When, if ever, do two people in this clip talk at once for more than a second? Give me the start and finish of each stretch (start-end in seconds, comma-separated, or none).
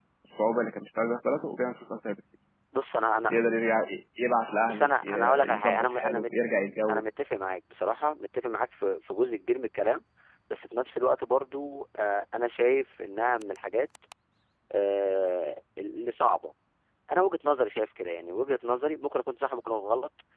4.7-6.3